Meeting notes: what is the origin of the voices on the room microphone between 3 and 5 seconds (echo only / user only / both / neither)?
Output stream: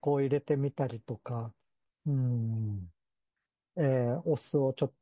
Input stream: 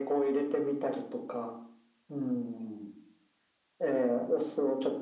echo only